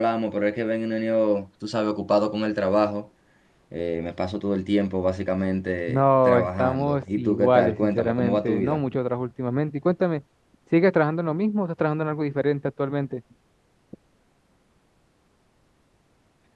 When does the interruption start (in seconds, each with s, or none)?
5.9 s